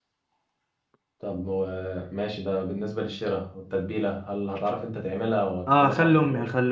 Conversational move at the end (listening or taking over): taking over